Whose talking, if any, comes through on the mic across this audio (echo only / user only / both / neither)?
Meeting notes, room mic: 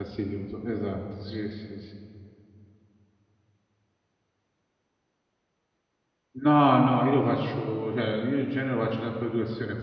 user only